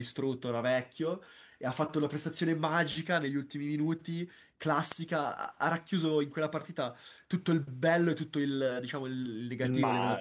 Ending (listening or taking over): listening